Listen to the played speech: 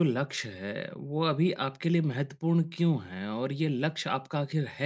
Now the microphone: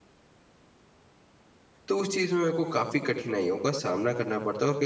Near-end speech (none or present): present